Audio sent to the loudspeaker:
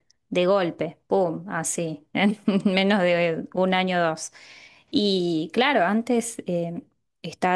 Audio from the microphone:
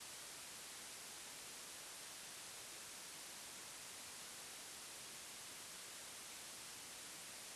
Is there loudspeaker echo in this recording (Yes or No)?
No